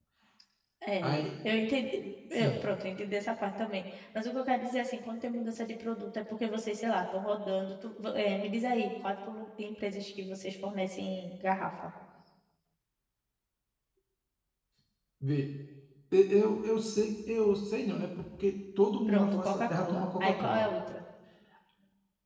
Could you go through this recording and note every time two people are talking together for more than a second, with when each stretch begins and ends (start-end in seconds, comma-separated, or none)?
19.1-20.7